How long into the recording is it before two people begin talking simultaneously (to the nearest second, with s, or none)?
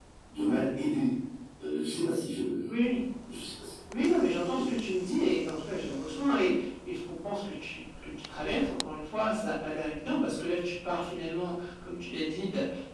none